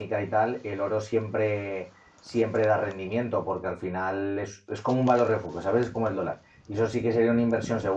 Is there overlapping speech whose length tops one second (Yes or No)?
No